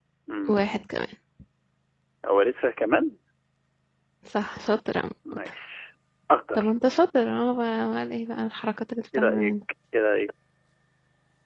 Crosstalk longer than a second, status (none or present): none